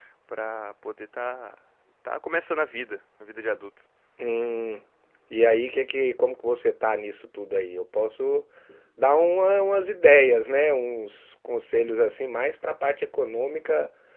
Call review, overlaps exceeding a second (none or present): none